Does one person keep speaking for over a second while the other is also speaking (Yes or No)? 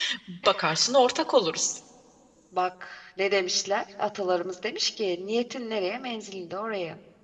No